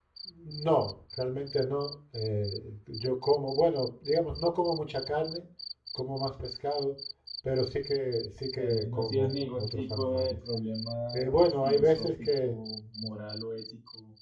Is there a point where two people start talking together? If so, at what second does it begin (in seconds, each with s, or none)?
8.6 s